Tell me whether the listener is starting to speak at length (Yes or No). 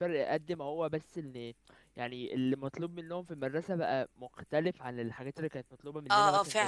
Yes